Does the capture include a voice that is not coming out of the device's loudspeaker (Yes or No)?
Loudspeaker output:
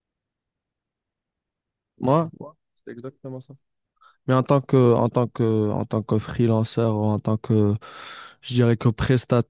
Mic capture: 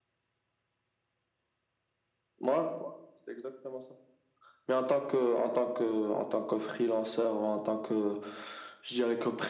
No